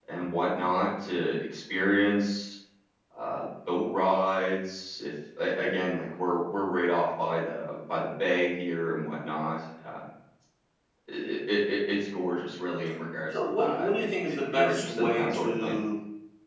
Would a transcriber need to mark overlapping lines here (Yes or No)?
Yes